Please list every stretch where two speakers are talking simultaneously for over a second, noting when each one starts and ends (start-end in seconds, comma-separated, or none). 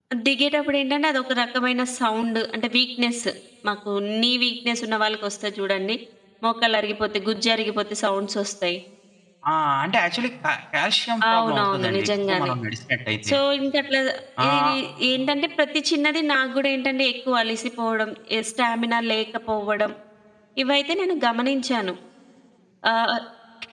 11.3-12.5